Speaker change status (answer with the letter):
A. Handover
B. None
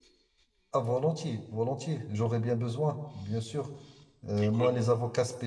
B